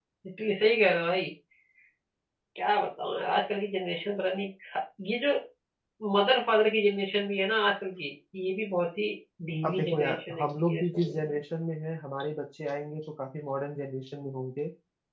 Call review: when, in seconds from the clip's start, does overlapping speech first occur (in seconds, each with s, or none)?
9.6 s